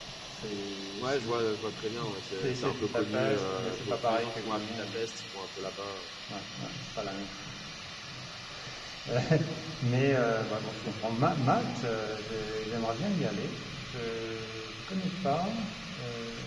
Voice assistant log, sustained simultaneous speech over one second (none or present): present